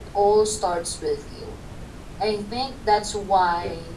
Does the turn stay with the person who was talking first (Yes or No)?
Yes